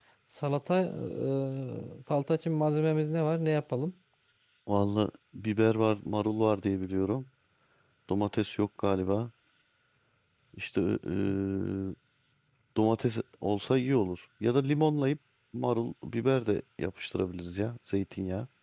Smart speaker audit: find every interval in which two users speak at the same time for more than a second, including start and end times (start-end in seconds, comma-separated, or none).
none